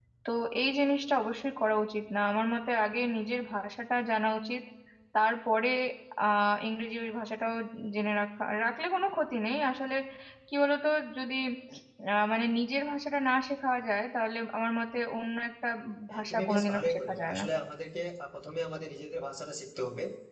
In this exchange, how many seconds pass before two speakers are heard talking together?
16.1 s

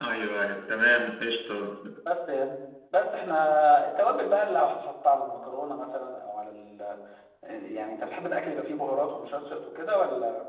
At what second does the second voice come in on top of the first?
none

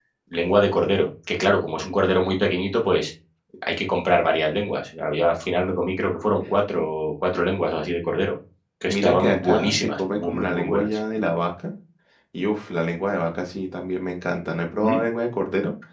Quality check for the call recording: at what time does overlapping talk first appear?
8.9 s

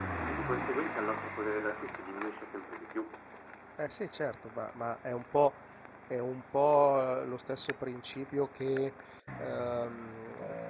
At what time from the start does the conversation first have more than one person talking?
none

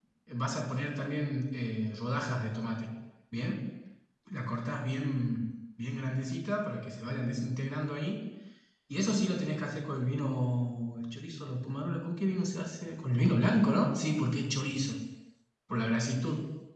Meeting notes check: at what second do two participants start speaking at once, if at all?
none

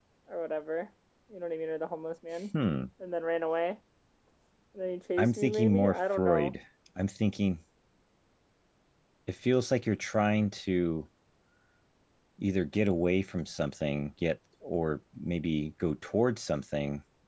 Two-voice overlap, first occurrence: 5.2 s

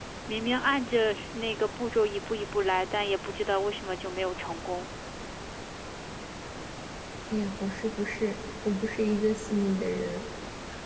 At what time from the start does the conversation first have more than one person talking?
none

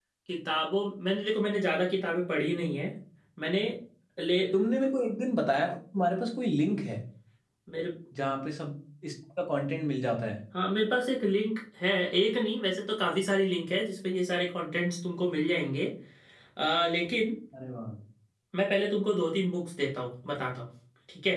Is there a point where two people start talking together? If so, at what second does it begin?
none

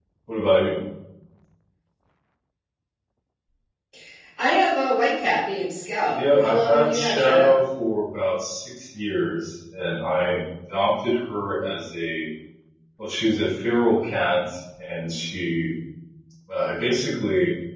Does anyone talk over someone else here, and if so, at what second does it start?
6.1 s

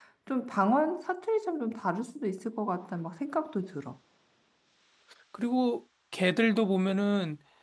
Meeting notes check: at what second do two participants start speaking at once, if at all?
none

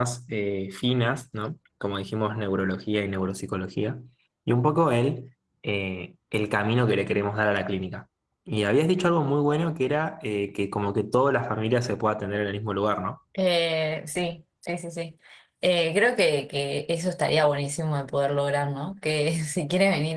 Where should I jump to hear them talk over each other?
none

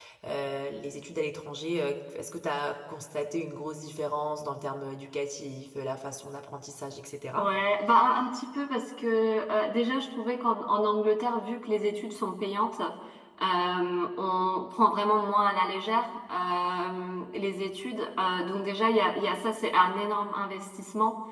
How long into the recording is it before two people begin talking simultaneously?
none

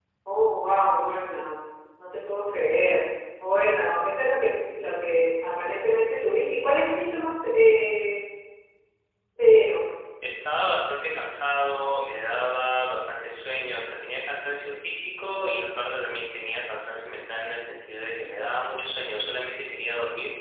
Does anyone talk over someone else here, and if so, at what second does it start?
none

